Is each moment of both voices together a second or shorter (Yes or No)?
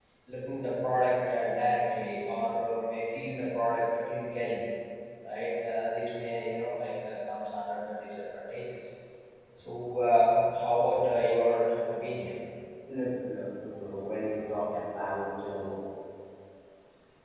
Yes